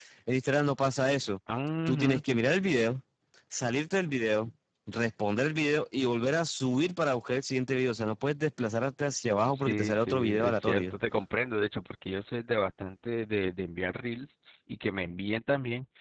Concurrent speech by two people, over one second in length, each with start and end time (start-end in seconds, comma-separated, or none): 9.5-10.9